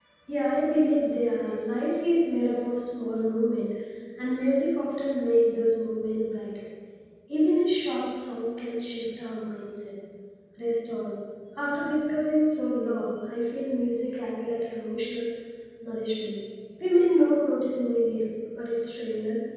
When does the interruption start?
none

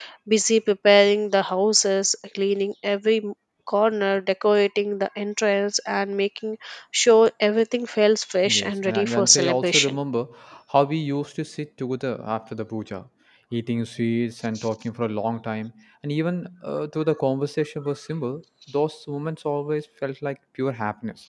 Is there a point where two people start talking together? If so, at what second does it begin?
8.4 s

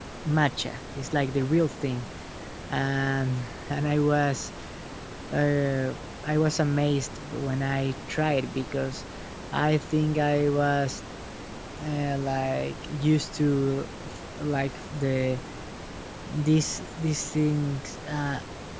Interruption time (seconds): none

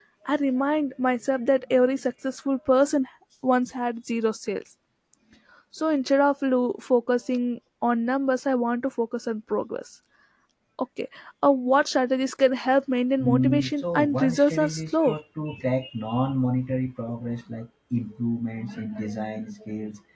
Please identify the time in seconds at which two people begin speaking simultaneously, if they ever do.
13.2 s

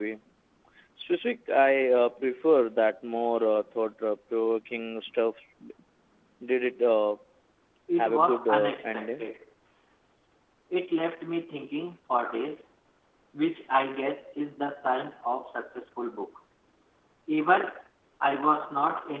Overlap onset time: 8.0 s

